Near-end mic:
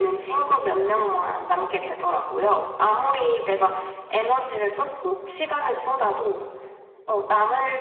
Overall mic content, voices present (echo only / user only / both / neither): echo only